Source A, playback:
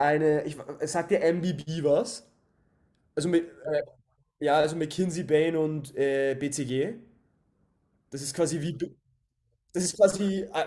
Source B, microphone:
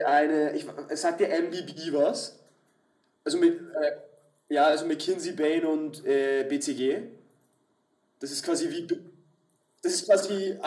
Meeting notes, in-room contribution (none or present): none